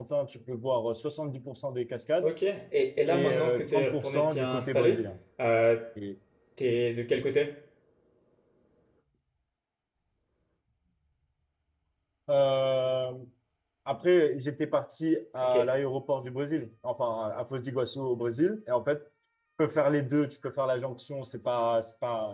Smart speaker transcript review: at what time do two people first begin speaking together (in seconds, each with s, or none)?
3.1 s